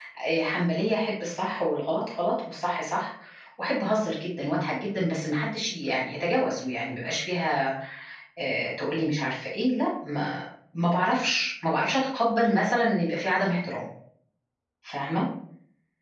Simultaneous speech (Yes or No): No